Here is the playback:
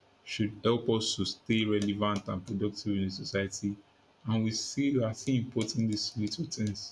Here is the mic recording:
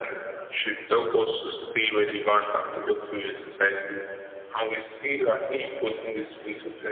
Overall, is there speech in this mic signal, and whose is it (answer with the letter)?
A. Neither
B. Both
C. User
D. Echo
D